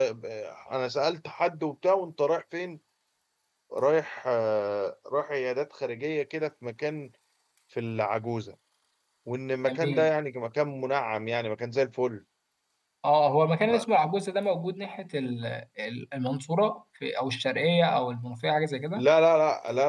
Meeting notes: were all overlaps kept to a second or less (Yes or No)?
Yes